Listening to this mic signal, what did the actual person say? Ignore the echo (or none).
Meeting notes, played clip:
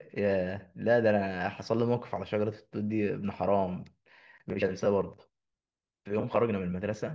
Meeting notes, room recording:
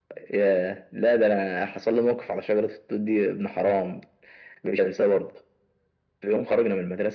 none